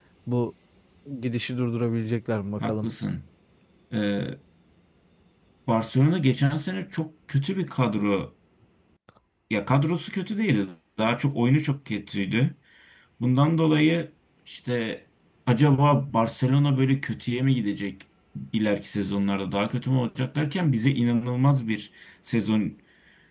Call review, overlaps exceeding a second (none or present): none